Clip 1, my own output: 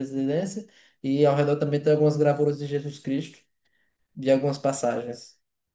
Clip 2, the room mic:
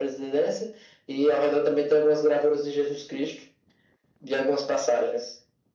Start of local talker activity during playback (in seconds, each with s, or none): none